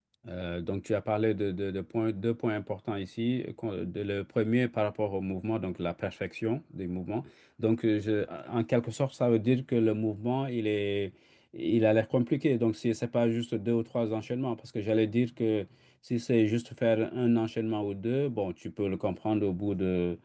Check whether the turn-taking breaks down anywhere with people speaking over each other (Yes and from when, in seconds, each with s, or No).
No